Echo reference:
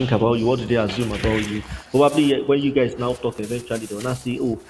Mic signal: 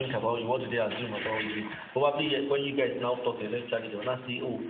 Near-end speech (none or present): none